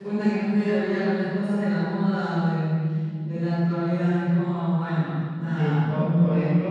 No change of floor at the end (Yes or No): No